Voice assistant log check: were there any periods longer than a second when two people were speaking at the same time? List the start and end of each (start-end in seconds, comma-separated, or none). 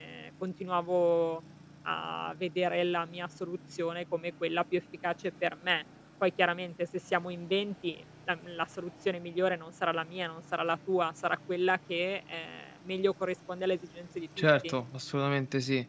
none